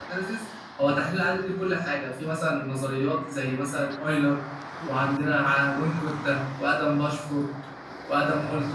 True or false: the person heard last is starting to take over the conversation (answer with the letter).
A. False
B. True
B